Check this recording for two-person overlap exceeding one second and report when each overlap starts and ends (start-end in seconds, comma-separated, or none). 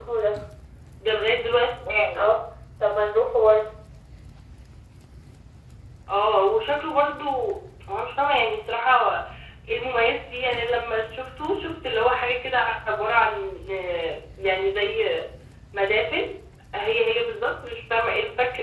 none